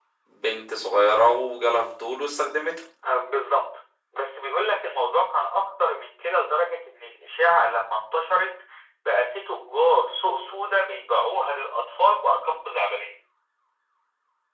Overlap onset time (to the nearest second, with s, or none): none